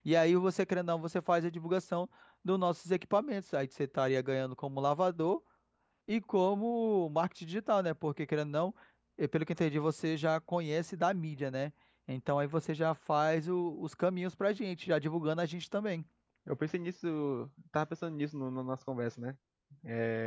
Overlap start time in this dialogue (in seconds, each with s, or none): none